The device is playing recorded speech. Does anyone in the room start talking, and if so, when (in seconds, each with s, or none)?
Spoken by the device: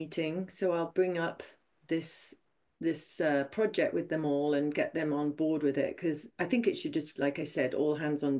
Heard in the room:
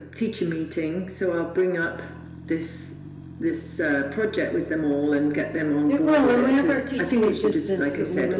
5.8 s